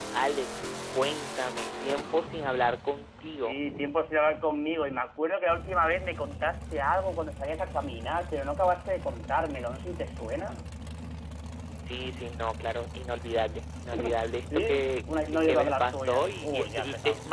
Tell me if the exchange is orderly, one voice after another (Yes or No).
No